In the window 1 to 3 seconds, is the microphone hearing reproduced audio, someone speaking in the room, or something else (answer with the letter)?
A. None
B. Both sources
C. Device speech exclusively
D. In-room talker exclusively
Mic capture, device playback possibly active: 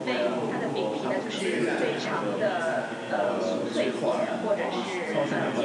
B